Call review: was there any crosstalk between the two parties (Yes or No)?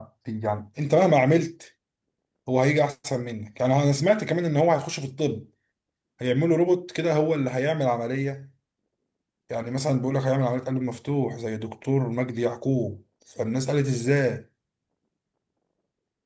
No